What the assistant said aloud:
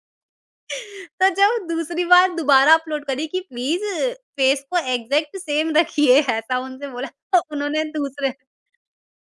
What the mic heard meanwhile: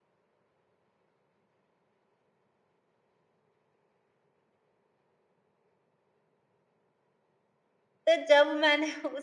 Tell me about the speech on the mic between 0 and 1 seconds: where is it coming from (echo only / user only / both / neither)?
neither